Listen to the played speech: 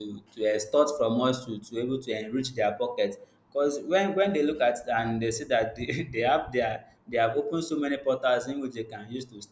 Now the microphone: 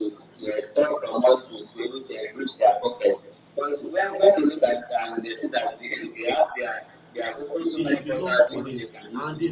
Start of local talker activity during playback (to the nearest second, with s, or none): 8 s